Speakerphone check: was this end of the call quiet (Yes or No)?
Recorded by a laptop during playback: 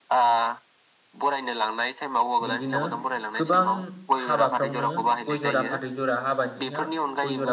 No